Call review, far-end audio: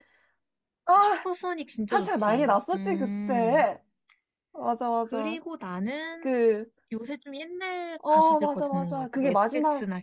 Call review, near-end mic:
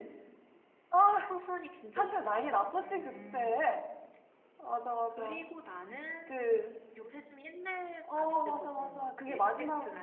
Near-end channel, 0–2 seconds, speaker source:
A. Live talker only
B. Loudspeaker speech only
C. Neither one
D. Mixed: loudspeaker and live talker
B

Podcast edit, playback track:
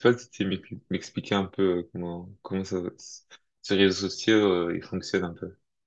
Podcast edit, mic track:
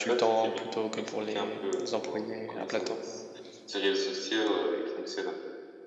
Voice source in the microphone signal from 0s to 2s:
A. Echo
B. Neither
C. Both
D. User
C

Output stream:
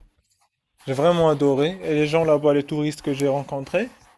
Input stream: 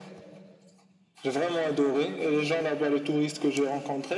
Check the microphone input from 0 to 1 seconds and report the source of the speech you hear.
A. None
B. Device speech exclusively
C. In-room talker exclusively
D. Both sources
A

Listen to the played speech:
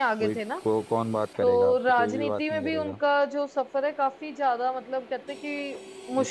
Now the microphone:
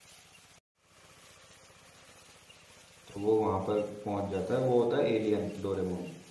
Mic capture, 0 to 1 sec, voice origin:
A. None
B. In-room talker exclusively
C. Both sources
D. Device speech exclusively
A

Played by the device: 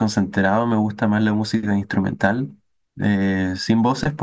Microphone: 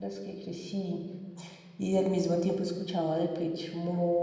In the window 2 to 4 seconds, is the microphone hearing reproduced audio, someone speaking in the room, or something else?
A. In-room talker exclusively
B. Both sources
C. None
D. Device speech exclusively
A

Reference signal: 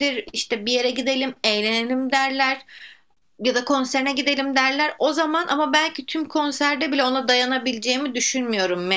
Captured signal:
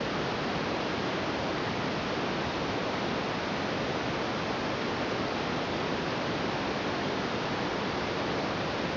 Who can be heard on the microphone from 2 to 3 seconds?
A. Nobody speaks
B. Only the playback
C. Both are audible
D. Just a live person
A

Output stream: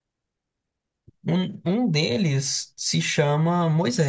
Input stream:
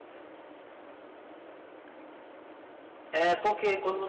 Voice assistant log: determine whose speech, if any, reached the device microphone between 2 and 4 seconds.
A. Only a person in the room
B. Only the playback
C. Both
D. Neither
A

